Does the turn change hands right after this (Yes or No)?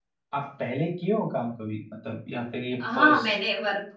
Yes